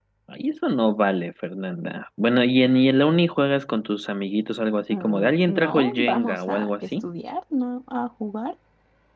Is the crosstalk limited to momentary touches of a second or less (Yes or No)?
No